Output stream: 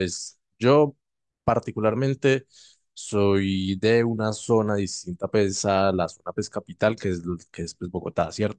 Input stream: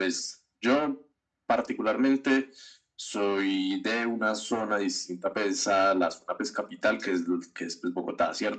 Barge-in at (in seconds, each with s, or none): none